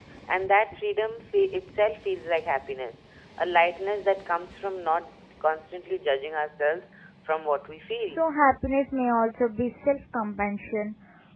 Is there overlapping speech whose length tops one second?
No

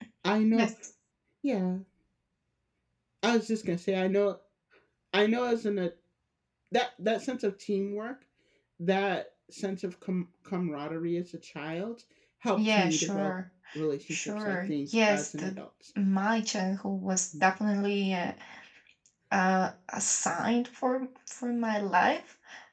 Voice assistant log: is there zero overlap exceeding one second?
No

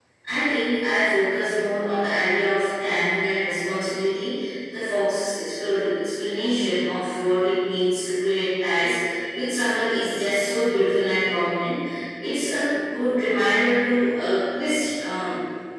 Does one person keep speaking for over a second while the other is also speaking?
No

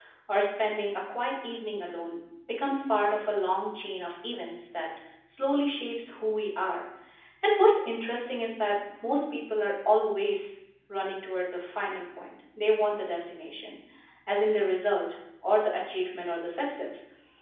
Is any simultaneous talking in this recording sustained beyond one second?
No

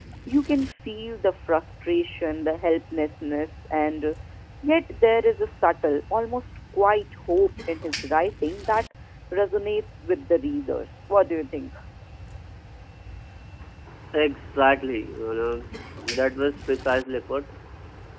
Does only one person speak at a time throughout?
Yes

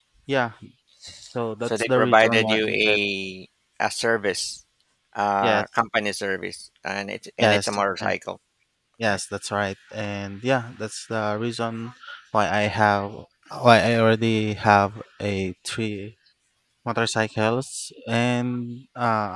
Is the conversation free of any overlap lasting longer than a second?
No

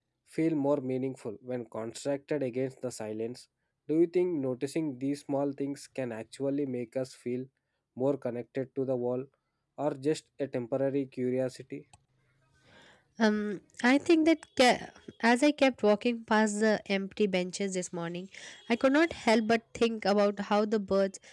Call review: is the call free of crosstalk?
Yes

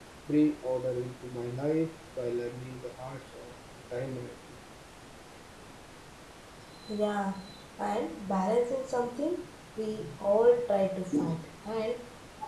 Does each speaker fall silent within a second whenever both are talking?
Yes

